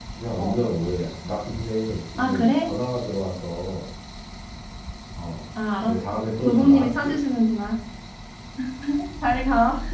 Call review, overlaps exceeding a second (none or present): present